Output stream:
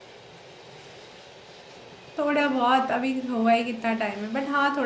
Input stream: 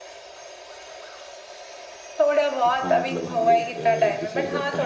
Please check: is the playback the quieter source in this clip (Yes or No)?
No